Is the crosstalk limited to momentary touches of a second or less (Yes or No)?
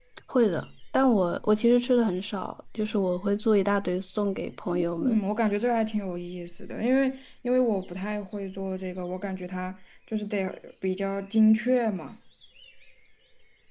Yes